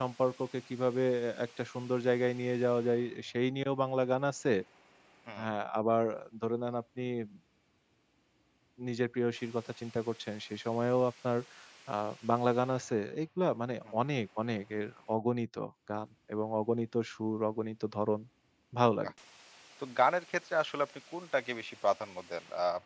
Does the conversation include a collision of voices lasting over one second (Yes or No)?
No